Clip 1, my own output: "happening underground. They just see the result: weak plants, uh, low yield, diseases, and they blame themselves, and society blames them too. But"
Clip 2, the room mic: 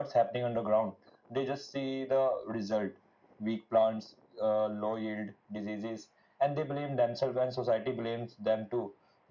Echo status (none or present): present